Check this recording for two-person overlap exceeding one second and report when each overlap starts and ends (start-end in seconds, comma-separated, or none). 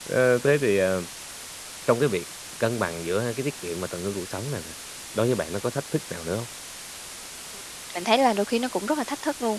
none